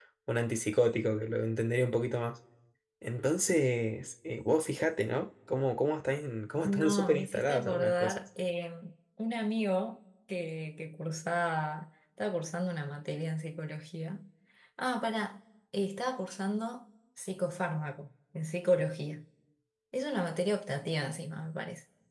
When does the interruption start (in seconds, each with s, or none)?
6.6 s